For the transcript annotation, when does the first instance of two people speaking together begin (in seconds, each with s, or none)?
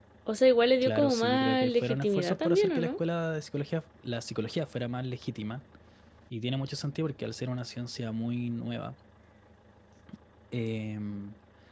0.8 s